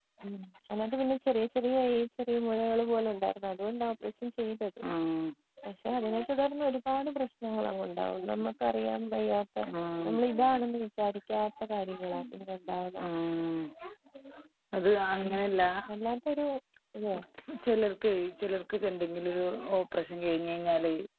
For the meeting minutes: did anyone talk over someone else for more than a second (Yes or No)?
No